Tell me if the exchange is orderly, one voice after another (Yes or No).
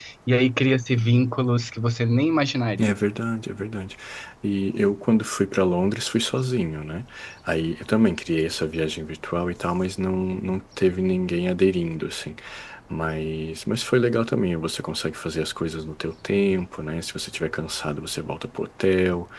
Yes